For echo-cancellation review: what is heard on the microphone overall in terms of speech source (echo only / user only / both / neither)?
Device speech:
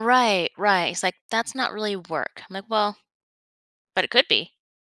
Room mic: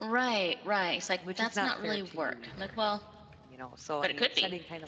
both